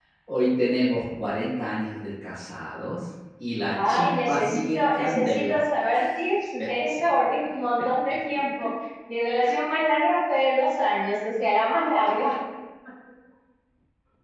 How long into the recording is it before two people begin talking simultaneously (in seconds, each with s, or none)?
3.7 s